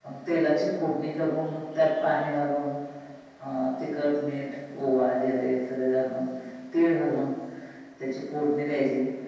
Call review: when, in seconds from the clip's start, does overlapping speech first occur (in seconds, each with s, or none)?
none